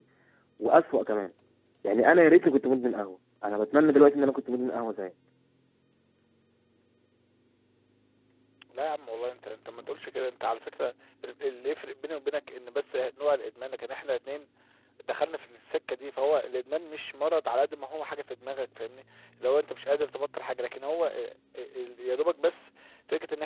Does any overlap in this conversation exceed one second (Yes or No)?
No